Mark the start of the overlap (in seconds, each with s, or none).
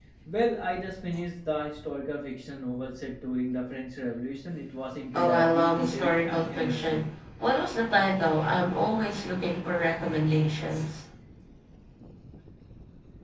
5.1 s